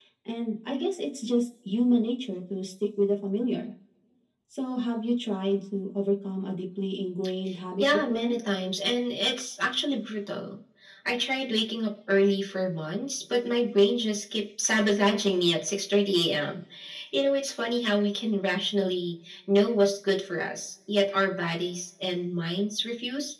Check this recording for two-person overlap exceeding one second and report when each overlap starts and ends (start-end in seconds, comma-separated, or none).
none